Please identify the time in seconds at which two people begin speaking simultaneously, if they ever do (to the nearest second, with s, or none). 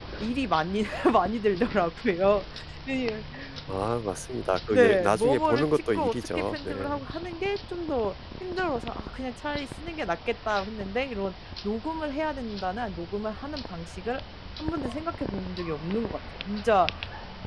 5 s